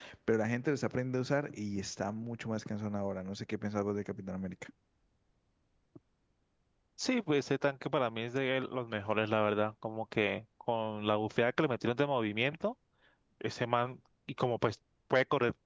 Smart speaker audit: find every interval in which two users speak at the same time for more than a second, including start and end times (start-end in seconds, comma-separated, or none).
none